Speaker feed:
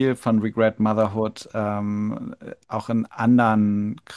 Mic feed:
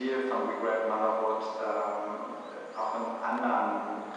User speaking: No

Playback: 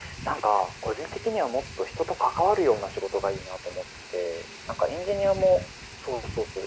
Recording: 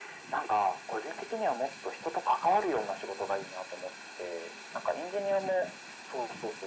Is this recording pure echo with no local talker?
Yes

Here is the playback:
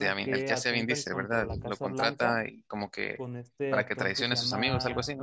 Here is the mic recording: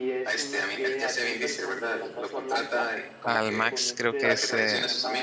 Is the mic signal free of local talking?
No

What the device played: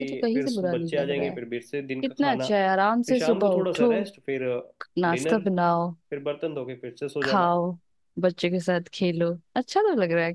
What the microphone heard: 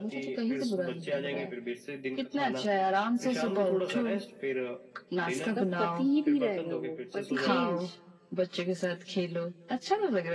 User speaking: Yes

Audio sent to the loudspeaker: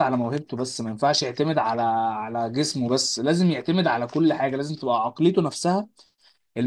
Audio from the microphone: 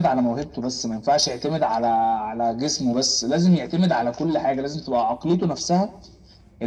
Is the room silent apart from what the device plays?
Yes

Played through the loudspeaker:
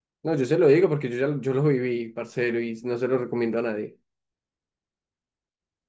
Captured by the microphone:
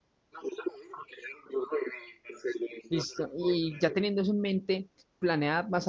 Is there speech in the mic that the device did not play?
Yes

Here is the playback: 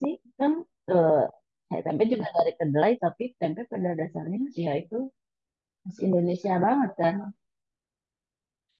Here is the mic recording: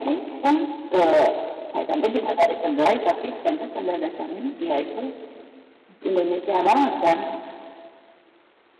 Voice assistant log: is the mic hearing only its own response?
Yes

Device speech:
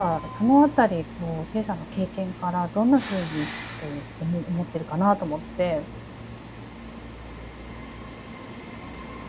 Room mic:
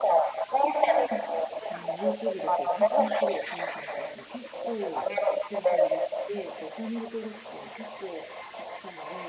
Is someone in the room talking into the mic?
Yes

